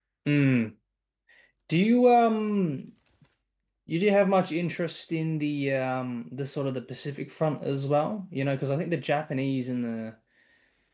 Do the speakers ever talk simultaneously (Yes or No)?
No